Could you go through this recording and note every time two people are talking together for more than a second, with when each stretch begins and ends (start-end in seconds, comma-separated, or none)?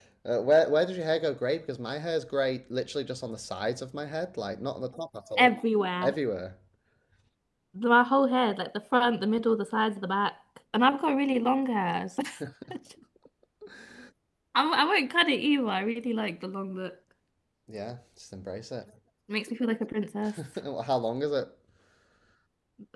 none